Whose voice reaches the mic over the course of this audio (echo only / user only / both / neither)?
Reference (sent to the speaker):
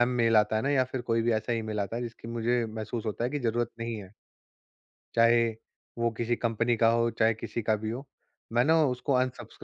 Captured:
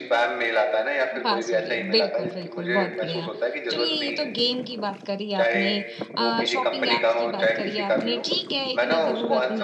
both